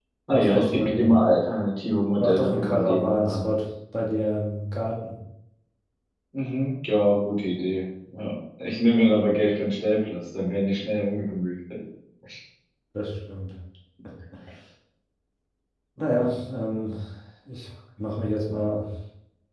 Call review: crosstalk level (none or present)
present